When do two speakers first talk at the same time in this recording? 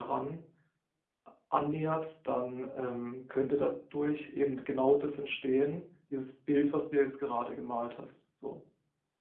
none

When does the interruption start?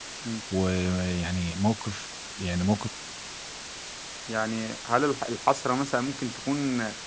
none

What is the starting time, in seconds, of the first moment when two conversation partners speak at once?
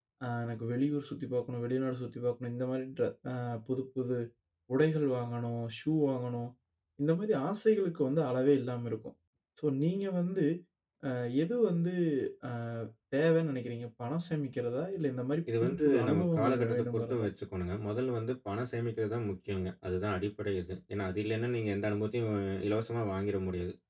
15.5 s

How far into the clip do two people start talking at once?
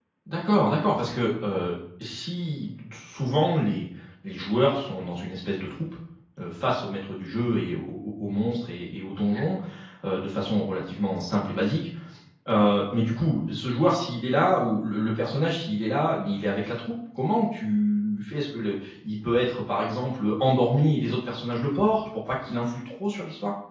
none

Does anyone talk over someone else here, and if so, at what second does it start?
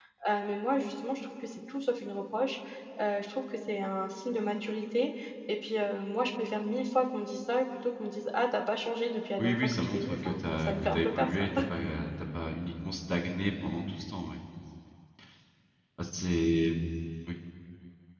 9.4 s

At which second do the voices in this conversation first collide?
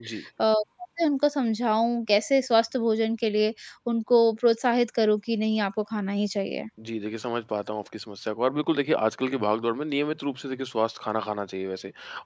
none

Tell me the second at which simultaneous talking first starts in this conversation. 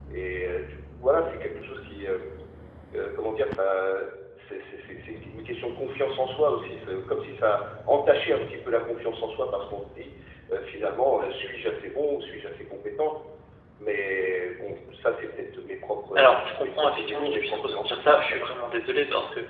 16.1 s

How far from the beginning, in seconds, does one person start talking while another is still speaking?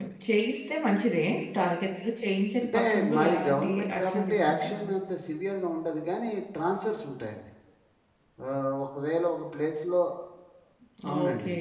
2.6 s

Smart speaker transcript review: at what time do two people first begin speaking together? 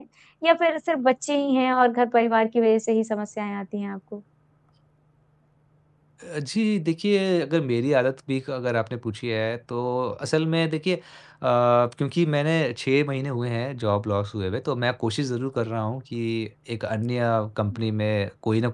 none

